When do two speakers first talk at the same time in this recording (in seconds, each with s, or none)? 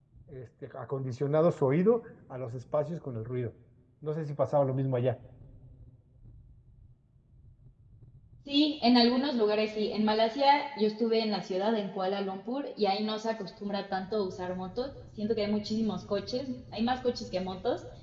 none